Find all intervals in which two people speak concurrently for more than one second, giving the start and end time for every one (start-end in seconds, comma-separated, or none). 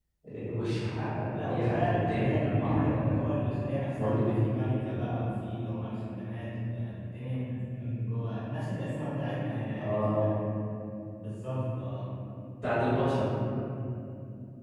1.3-3.2